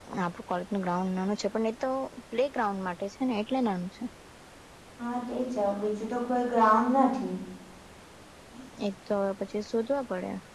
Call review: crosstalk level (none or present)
none